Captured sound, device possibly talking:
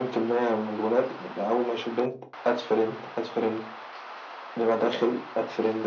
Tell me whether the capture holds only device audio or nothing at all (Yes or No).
Yes